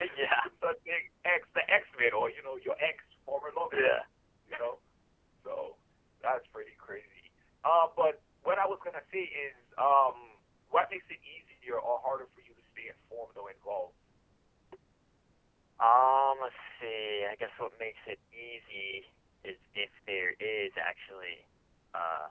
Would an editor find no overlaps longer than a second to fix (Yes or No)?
Yes